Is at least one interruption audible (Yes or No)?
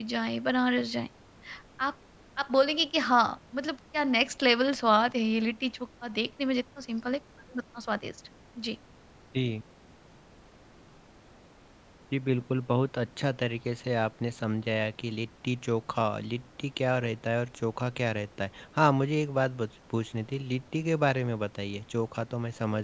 No